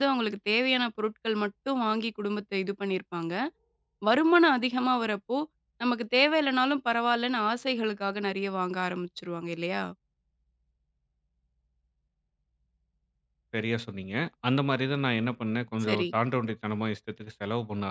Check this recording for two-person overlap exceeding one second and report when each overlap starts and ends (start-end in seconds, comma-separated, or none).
none